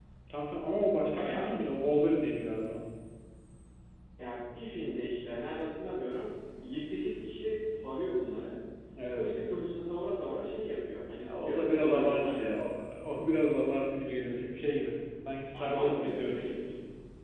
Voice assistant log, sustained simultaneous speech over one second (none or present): present